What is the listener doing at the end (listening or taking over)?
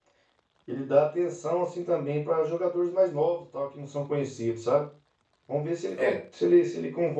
listening